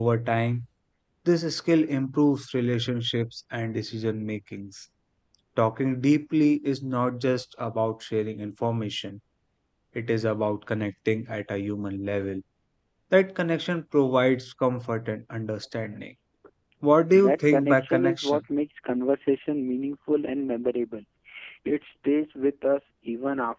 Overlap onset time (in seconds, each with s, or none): 17.1 s